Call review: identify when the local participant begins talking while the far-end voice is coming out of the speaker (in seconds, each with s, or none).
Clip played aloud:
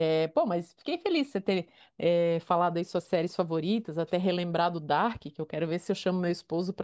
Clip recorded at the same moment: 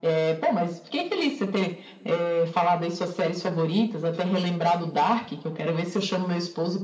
none